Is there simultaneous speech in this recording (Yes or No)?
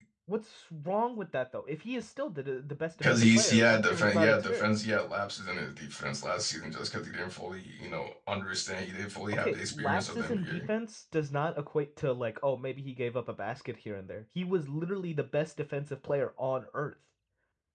Yes